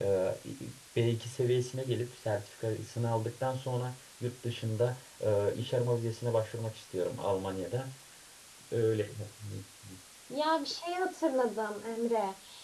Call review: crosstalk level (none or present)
none